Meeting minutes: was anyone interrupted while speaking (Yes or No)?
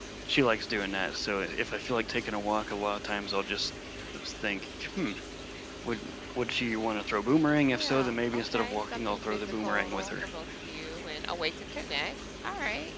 Yes